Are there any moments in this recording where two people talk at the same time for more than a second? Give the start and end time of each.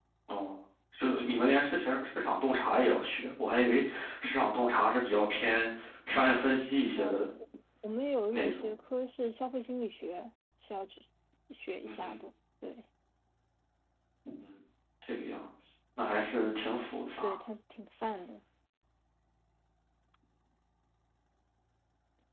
none

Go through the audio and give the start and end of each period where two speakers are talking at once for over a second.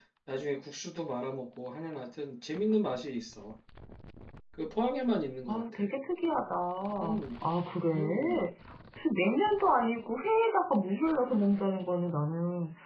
none

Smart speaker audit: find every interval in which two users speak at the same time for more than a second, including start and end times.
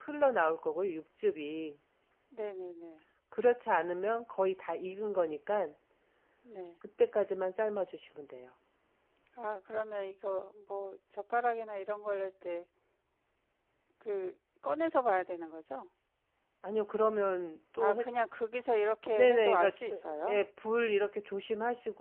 19.1-20.4

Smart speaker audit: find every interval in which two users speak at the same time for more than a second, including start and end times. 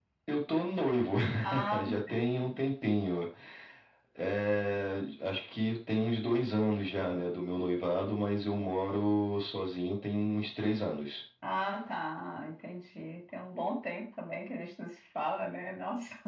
none

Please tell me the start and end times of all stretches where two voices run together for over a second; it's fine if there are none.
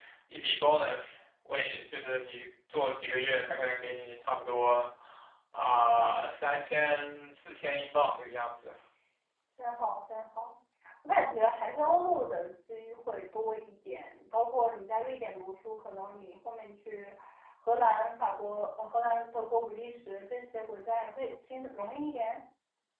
none

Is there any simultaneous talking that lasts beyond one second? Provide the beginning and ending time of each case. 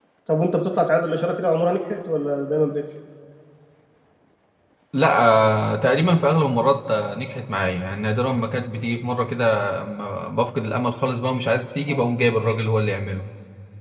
none

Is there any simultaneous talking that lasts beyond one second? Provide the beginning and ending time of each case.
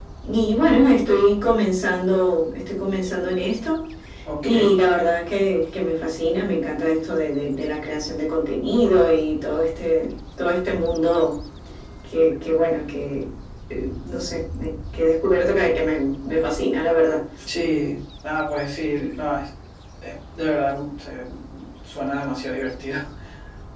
none

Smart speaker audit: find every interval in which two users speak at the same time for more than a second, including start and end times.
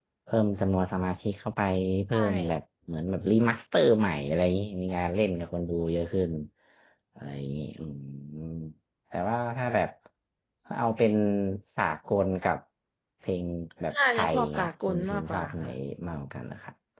13.9-15.7

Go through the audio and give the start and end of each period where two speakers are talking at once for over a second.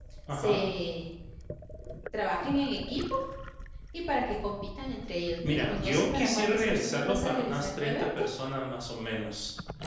5.4-8.2

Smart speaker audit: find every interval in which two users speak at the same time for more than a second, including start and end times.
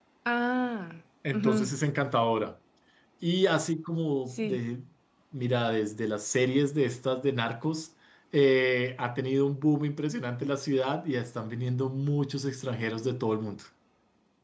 none

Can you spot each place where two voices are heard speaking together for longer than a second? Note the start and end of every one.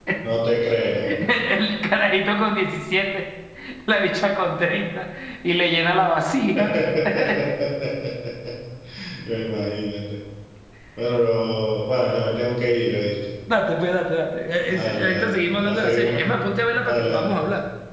14.7-16.3

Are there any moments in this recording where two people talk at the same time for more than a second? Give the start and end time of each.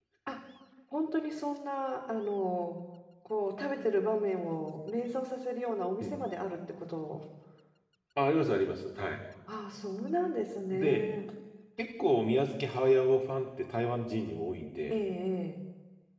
none

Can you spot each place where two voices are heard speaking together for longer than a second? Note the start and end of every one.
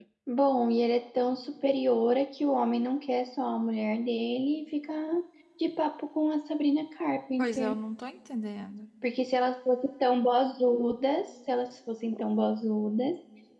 none

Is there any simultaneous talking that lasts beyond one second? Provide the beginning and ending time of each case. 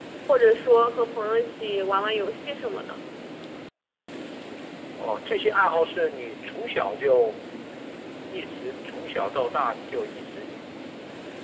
none

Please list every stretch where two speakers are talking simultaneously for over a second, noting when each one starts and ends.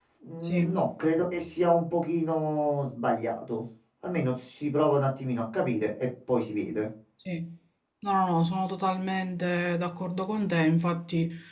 none

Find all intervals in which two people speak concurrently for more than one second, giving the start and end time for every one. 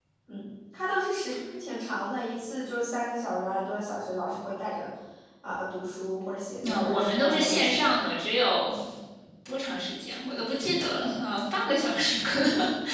6.7-7.9

